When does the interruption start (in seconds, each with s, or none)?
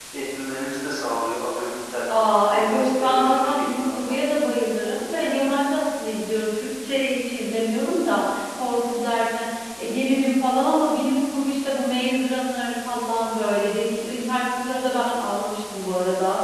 2.5 s